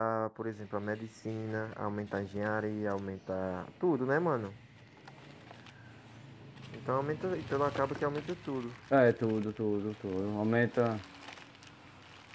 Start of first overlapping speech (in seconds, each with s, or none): none